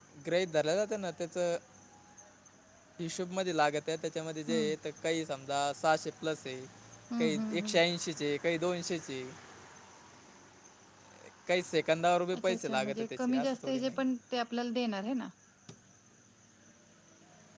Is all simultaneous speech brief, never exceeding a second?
No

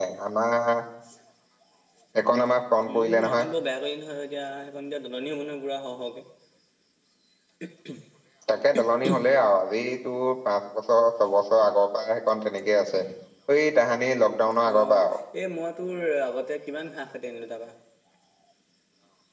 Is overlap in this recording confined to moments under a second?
Yes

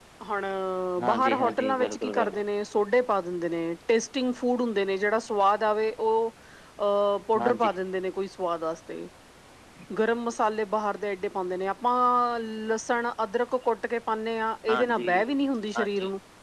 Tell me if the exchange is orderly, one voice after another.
No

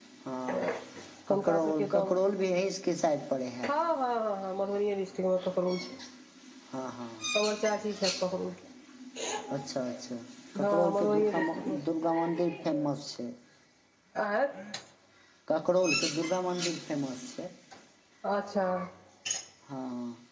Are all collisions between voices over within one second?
No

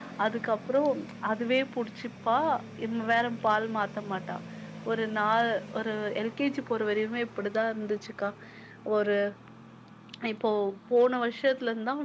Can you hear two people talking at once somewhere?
No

